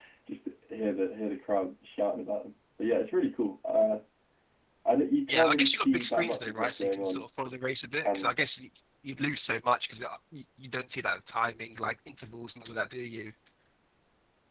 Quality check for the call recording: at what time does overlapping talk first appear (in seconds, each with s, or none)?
5.3 s